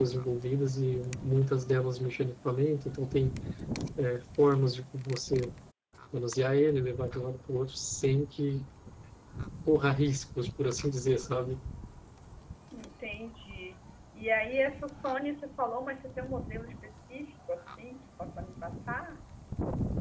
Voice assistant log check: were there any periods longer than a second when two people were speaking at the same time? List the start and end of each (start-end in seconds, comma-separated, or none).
none